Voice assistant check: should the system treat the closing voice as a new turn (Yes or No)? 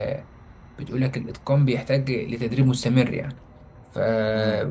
No